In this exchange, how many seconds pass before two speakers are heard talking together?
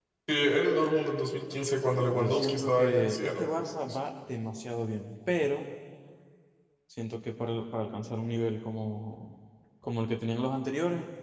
2.1 s

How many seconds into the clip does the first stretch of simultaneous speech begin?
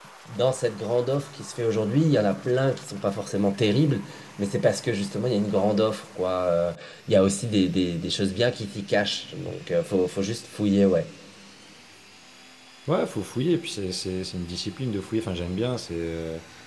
none

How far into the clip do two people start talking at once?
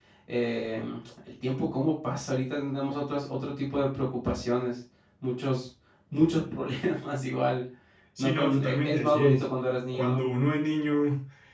8.2 s

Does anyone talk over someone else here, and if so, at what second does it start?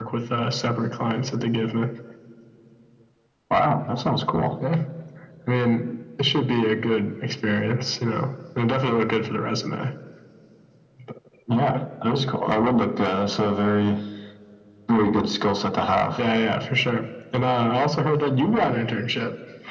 none

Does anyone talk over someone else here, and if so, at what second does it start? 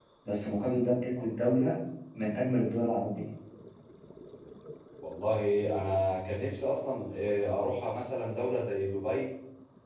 none

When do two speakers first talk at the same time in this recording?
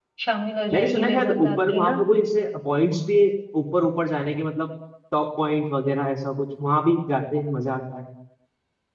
0.7 s

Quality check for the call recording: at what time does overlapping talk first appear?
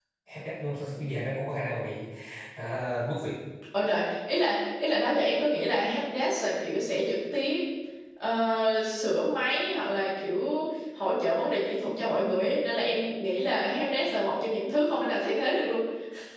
none

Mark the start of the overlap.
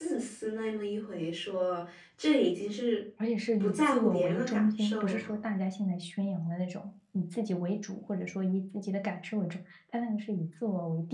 3.6 s

